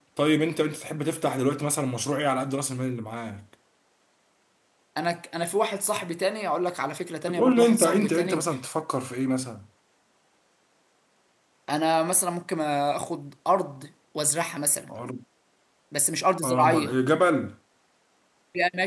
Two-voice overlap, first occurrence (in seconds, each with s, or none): 7.3 s